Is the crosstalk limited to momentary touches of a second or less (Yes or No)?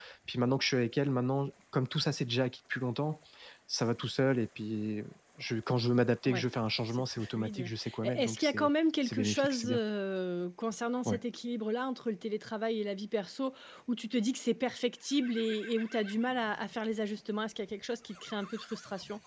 No